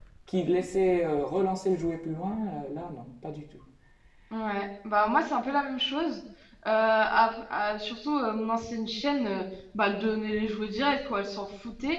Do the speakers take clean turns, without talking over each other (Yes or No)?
Yes